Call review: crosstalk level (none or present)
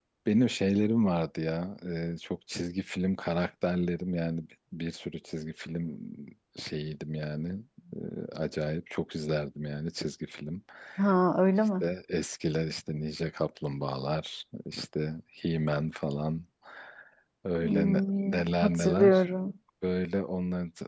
present